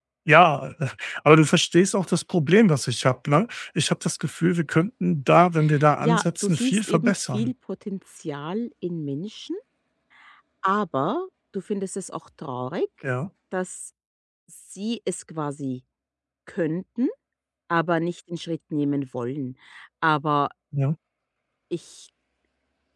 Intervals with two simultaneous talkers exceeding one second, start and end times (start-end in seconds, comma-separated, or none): 6.0-7.5